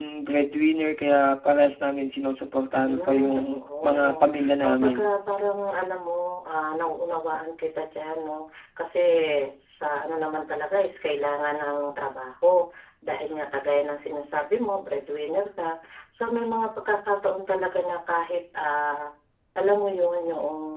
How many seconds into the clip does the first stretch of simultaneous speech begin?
2.7 s

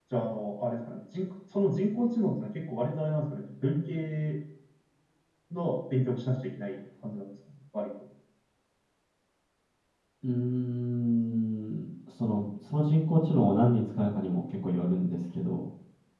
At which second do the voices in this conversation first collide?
none

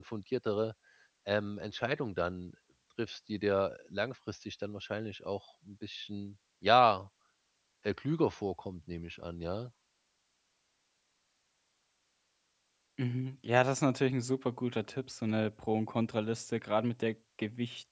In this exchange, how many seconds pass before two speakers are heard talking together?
none

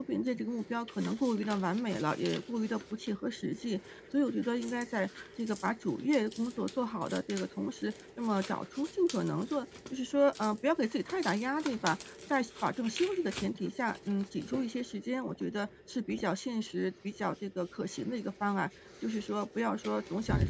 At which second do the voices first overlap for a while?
none

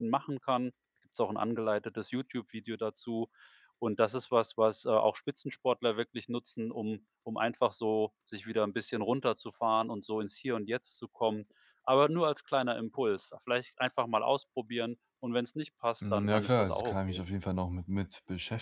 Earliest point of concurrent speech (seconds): 16.0 s

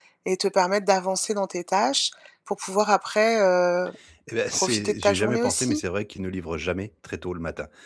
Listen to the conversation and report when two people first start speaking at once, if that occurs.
4.5 s

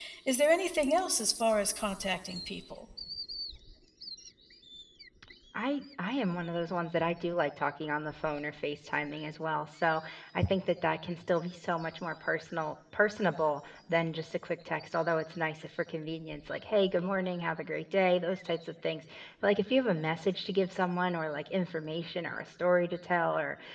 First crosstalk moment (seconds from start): none

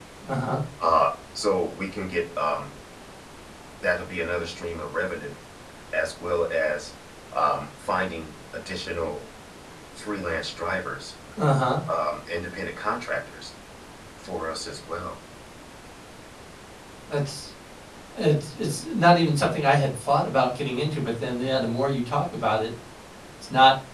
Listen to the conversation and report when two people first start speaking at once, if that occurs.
none

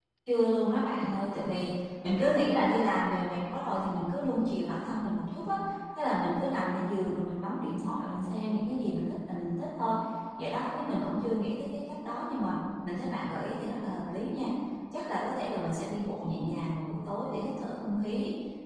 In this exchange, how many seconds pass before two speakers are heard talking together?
none

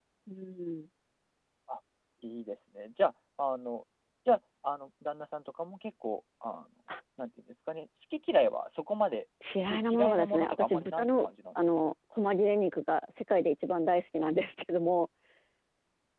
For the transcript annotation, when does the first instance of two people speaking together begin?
9.4 s

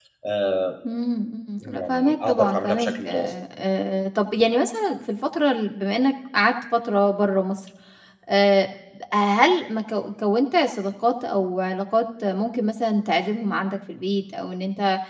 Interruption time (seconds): 1.6 s

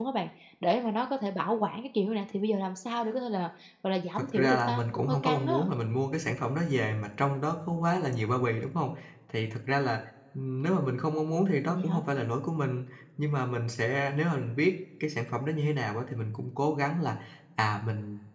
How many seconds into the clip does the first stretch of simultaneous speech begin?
4.3 s

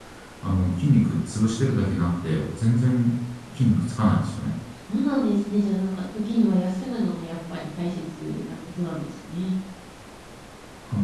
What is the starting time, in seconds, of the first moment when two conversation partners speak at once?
none

